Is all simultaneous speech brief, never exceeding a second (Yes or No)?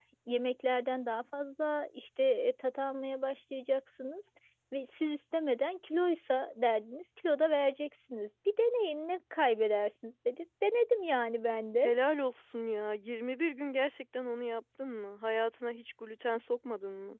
Yes